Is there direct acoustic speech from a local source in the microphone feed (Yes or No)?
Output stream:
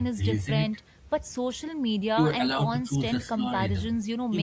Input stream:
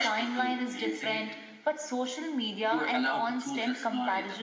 No